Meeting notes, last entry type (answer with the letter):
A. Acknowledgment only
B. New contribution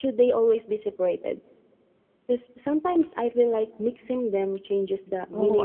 B